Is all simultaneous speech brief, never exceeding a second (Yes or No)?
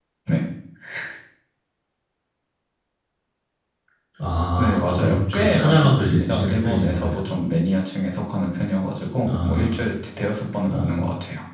No